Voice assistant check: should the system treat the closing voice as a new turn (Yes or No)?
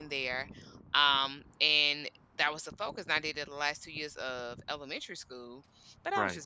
No